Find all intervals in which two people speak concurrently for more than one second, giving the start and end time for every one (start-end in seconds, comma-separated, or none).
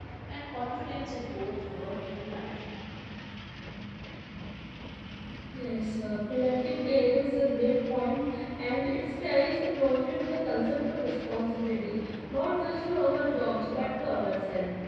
none